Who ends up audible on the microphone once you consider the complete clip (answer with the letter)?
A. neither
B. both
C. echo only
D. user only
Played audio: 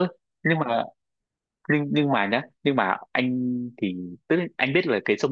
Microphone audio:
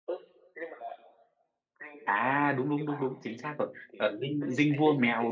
B